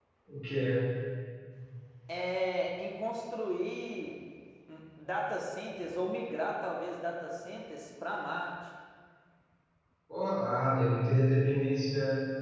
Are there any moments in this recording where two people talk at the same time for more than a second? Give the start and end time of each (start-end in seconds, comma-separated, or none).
none